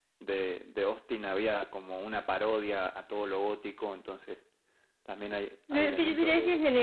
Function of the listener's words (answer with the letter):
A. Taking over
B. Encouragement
A